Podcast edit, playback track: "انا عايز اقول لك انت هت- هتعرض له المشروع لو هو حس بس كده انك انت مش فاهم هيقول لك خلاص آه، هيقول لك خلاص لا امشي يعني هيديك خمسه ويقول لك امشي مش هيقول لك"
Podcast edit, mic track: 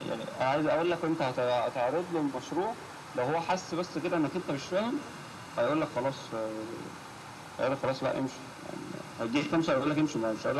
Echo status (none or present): present